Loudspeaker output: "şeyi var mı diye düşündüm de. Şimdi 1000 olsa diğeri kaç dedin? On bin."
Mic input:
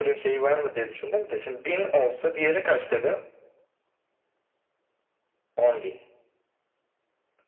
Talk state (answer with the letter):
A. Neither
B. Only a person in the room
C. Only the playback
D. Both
C